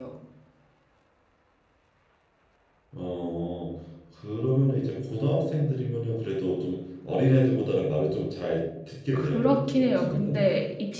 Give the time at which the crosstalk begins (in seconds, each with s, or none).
9.1 s